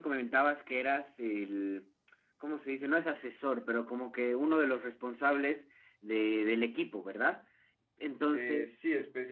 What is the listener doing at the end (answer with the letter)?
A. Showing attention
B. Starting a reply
B